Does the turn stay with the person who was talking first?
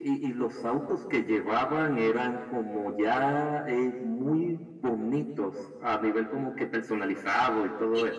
No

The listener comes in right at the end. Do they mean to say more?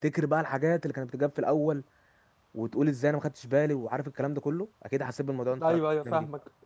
Yes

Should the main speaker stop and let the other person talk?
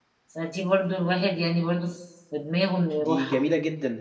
Yes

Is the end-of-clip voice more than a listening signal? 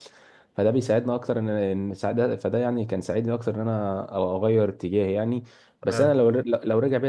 No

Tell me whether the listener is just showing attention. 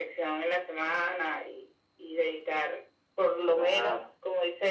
Yes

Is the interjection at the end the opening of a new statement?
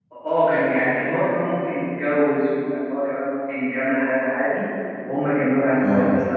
No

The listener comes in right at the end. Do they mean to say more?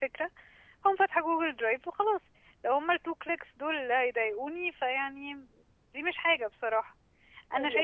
Yes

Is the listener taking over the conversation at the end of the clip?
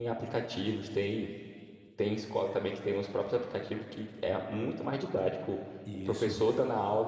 No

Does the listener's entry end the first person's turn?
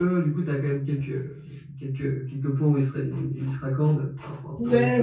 Yes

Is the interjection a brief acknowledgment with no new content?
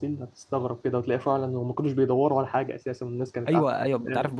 No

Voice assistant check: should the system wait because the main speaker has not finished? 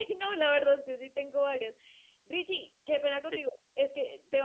Yes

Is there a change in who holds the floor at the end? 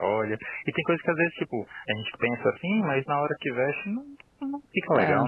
Yes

